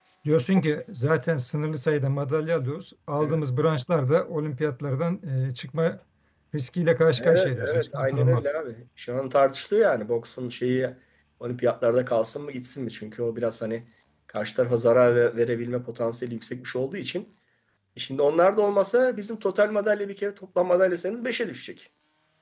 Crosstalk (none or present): present